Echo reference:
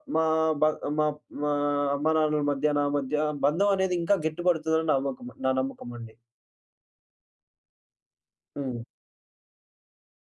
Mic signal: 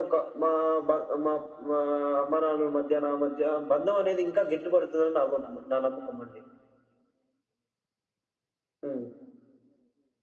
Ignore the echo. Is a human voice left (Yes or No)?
No